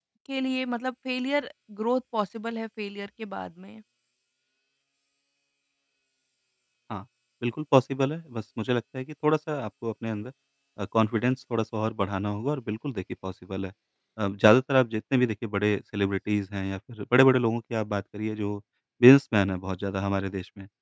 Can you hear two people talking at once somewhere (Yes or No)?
No